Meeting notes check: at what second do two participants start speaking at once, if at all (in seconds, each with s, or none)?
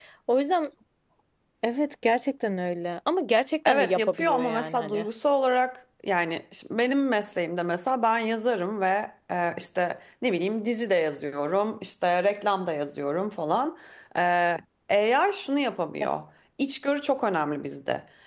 3.6 s